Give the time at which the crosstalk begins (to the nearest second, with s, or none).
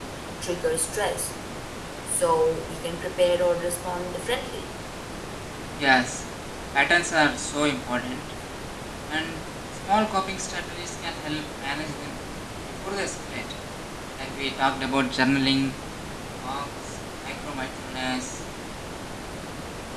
none